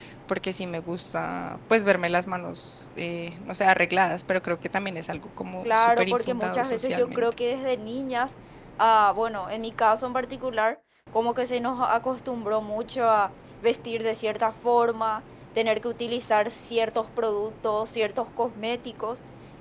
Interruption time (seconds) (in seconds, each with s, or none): 5.6 s